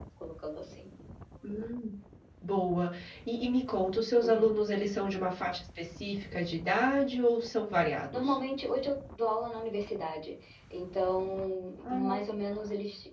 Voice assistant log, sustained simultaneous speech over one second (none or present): none